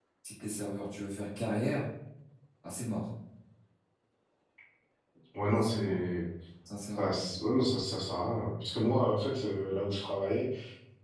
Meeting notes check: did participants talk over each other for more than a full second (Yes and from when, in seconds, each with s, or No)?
No